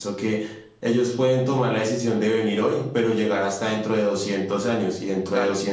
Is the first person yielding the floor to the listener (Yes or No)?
No